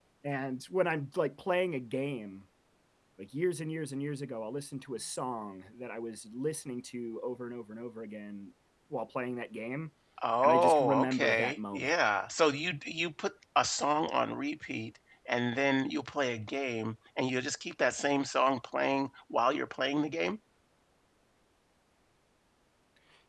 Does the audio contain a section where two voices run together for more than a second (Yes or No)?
Yes